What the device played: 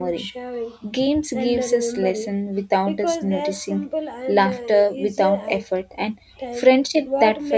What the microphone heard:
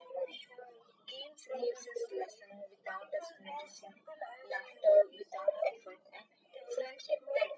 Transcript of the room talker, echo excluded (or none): none